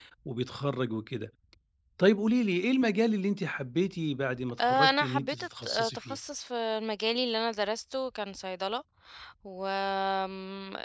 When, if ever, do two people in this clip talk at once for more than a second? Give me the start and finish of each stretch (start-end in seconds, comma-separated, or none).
4.6-6.2